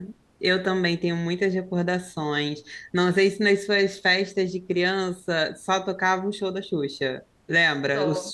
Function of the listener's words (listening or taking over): listening